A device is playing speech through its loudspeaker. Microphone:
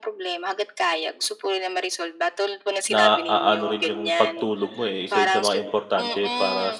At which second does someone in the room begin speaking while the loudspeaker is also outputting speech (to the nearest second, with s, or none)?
3 s